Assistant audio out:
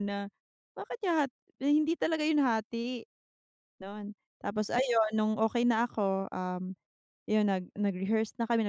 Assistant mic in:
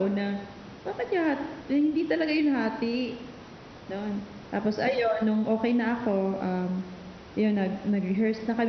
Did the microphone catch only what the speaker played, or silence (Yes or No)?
Yes